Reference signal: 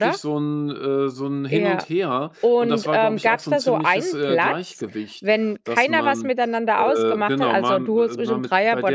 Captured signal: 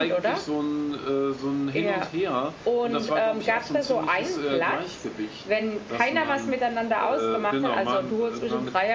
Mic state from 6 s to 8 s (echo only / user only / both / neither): echo only